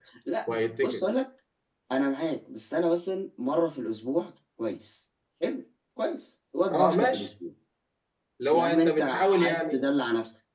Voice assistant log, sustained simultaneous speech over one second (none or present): present